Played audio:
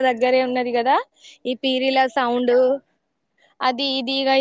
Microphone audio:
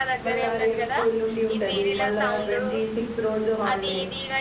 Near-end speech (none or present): present